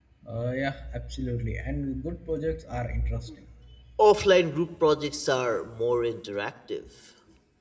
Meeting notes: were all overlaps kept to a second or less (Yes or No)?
Yes